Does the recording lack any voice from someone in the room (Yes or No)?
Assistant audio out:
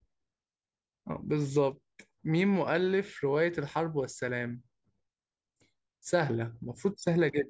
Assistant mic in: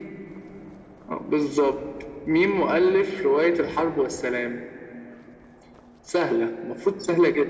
Yes